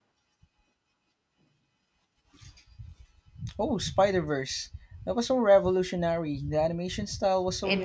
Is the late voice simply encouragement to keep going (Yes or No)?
No